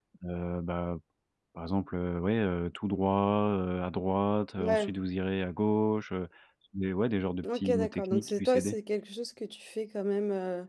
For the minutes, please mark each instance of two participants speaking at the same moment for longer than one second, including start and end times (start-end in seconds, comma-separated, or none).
7.4-8.8